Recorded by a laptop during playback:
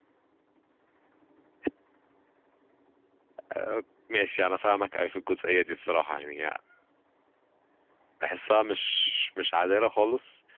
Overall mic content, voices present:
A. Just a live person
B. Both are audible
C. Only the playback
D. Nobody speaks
A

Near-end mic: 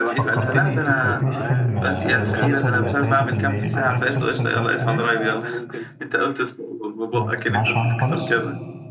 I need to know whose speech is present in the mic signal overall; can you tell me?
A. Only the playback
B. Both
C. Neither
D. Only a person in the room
B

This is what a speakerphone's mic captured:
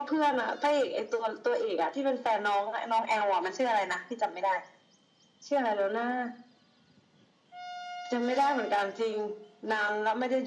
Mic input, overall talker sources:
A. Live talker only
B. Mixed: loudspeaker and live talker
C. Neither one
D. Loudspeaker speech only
D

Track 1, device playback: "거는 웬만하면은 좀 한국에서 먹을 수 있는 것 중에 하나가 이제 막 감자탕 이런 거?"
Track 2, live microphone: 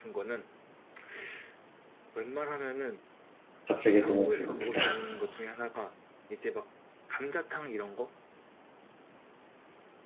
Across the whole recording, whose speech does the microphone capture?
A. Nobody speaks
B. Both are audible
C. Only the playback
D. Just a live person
B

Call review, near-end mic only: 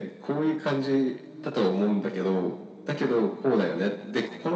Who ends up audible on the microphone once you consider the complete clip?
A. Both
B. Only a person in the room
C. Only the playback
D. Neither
C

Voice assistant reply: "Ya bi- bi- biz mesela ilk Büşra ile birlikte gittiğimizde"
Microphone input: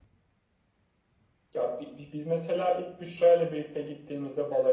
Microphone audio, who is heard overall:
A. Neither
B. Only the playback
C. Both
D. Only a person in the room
B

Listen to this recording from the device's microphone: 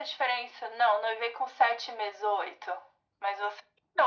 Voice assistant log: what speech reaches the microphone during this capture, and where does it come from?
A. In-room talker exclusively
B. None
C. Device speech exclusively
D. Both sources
C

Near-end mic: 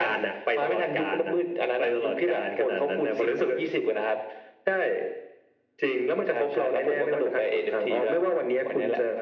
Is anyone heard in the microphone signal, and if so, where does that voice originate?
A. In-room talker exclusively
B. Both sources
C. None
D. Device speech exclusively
D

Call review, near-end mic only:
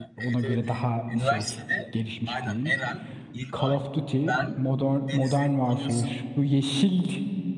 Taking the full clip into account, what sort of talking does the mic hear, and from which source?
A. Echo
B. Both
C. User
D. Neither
B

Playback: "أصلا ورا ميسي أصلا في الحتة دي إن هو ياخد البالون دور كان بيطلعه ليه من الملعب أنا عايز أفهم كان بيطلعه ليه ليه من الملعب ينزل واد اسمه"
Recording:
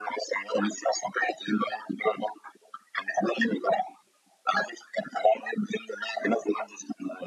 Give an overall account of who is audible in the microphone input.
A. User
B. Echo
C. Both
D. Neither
B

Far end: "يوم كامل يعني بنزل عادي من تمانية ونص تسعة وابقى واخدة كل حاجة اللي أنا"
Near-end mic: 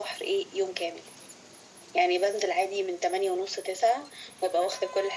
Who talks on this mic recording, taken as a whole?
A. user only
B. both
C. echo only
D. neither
C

